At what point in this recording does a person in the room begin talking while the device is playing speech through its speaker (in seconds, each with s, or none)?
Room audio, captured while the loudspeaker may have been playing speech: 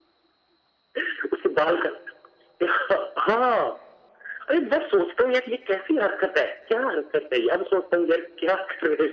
none